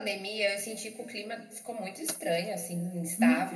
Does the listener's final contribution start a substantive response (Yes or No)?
Yes